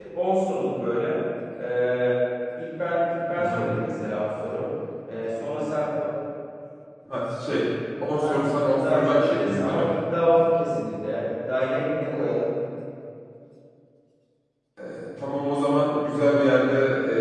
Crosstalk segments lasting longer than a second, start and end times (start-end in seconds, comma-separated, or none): 8.2-9.9